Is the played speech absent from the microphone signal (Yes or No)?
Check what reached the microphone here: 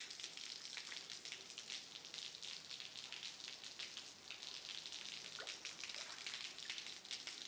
Yes